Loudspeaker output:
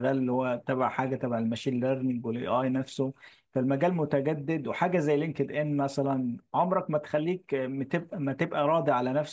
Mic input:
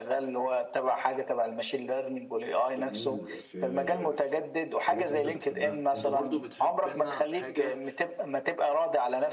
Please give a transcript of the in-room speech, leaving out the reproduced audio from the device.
جميل في في الحاجات اللي أنت بتحبها أنت برضو بتحب لنا حاجة

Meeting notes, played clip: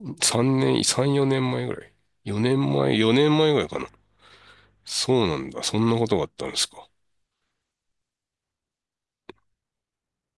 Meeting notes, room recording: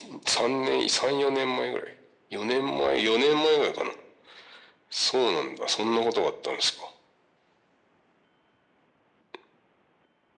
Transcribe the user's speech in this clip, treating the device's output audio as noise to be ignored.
none

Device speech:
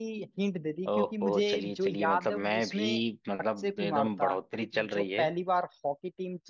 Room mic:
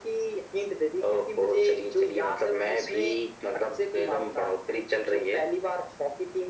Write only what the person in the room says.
none

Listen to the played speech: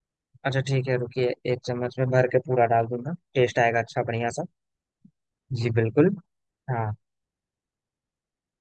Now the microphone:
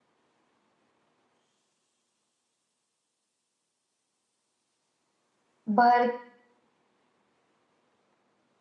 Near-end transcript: भर

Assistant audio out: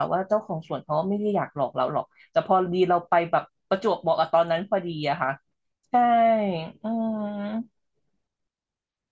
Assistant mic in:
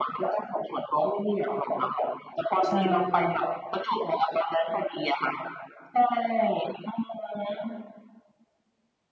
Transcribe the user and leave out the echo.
ใช่

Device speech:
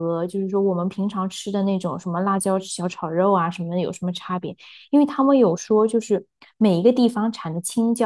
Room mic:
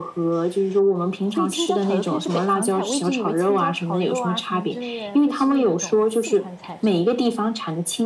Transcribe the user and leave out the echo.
所以青椒炒肉片是北方菜，我一直以为青椒炒肉啊什么之类的会是那种四川菜之类的。

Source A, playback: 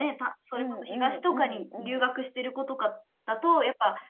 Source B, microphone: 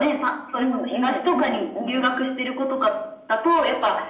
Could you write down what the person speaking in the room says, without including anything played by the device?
none

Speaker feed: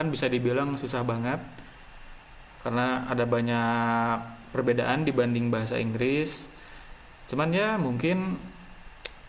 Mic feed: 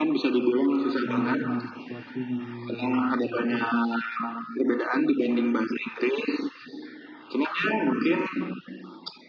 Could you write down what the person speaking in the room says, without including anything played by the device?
menyerah dengan situasi jangan menyerah dengan kondisi lah ya

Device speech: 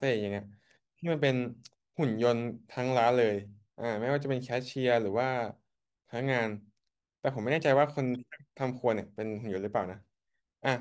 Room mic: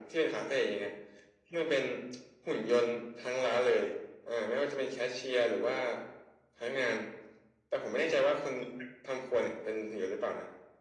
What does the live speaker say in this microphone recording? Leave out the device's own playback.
none

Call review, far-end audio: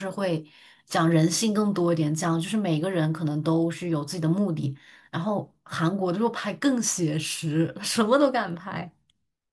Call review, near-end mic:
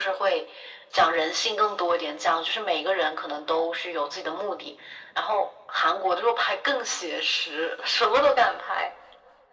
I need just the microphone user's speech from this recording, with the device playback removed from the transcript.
none

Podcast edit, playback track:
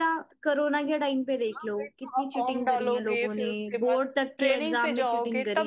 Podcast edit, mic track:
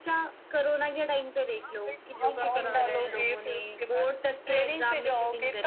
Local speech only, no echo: योगा करा रहे हैं

